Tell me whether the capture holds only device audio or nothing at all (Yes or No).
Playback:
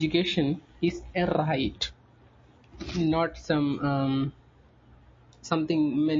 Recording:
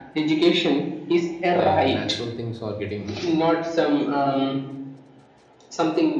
No